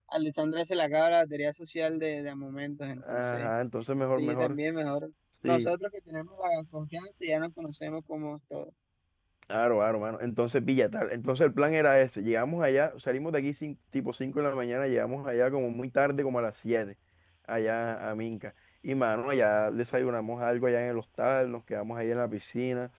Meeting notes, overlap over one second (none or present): none